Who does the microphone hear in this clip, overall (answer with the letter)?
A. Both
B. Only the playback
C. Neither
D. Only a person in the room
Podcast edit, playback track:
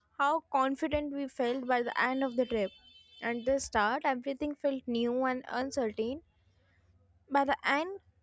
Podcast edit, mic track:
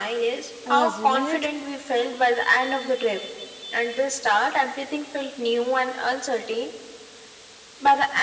A